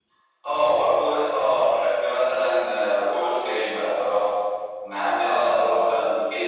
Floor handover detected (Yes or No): No